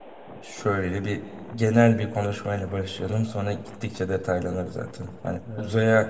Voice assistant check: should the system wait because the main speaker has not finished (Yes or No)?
Yes